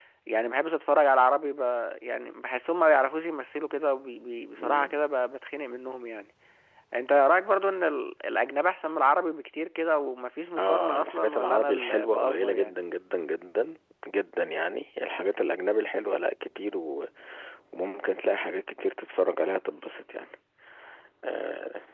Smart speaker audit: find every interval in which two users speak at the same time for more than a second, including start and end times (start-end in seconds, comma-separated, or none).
10.6-12.8